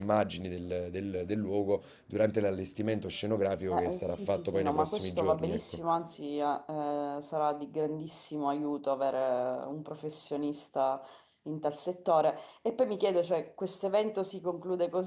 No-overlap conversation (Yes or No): No